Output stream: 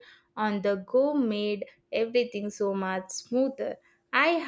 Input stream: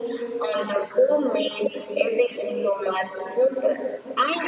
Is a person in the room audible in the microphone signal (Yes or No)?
No